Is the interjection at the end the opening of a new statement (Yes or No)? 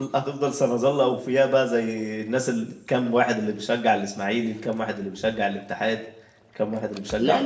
Yes